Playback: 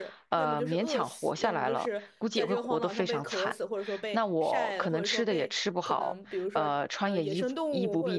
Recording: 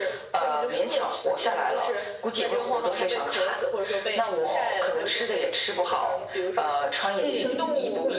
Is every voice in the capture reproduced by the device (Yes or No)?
No